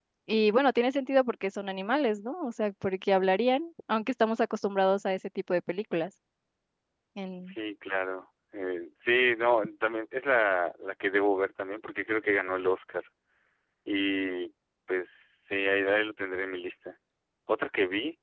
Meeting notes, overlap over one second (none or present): none